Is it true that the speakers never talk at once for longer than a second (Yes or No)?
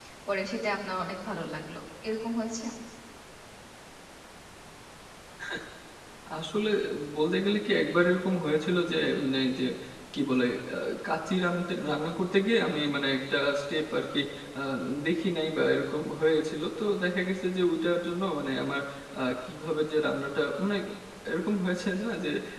Yes